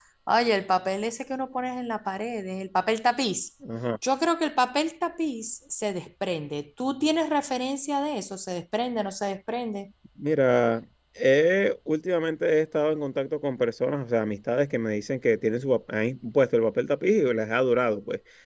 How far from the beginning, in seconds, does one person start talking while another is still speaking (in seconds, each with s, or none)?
none